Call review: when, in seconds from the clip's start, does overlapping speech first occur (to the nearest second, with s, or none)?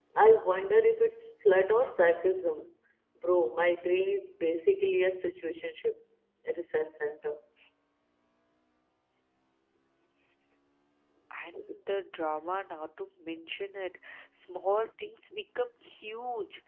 none